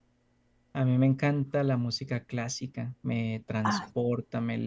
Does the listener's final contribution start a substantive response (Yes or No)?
No